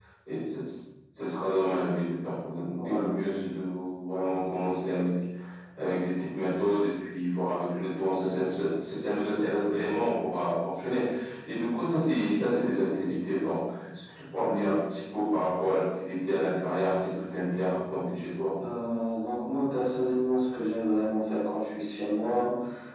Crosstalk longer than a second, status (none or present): none